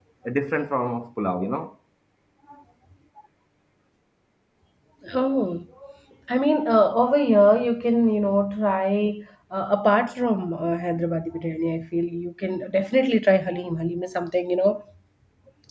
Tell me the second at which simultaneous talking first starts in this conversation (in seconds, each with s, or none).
none